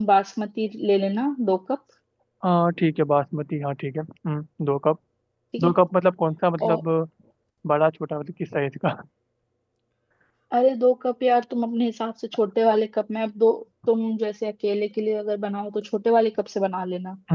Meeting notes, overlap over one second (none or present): none